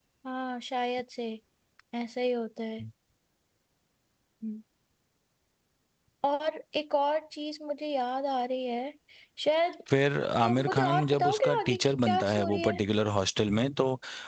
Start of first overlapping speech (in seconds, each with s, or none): 10.4 s